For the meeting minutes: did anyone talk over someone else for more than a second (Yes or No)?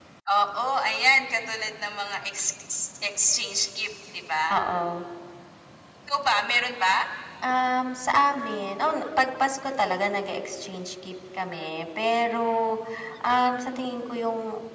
No